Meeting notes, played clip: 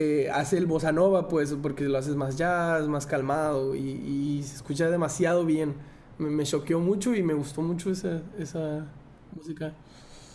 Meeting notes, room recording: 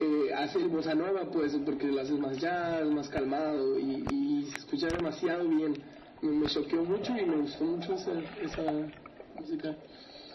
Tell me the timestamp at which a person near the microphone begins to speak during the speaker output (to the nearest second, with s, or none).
none